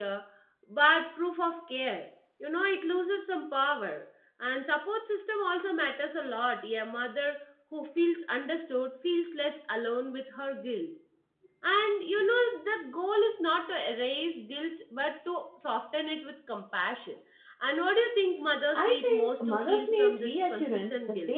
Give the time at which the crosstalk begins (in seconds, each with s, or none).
18.7 s